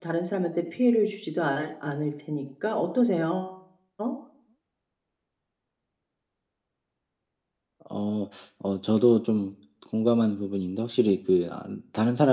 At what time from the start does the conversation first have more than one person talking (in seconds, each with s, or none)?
none